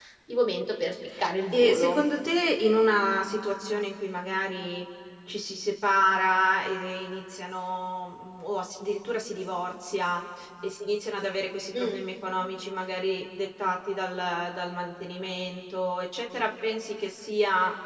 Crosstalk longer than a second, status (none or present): none